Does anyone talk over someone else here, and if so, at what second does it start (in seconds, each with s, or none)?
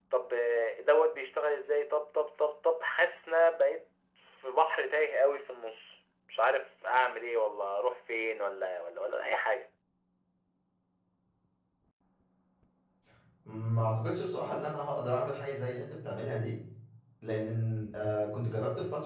none